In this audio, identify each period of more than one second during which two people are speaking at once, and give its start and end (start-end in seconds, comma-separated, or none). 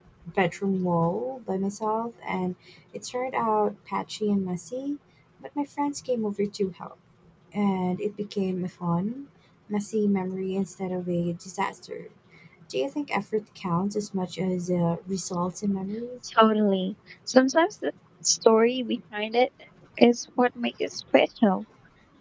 none